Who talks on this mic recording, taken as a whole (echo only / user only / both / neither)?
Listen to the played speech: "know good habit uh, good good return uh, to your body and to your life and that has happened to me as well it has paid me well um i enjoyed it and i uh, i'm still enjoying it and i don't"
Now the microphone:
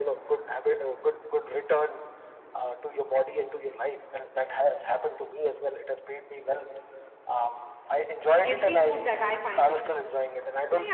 both